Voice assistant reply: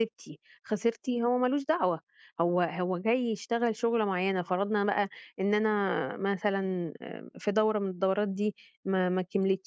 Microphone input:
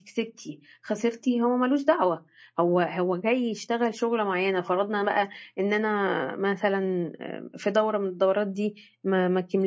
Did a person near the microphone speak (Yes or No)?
No